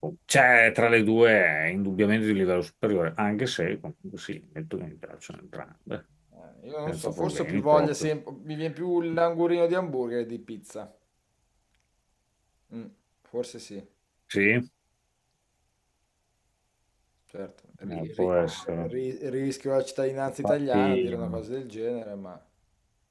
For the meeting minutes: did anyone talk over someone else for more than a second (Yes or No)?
Yes